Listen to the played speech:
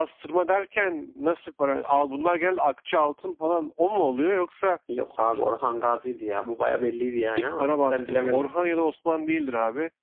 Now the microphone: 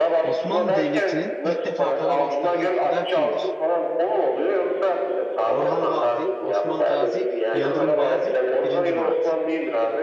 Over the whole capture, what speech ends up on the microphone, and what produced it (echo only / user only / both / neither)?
both